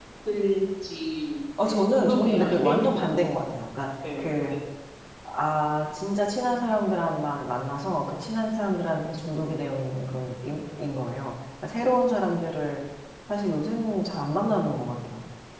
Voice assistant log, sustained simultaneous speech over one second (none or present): present